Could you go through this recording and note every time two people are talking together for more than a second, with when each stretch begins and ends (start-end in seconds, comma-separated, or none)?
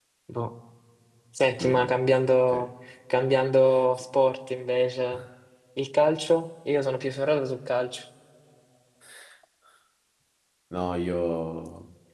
none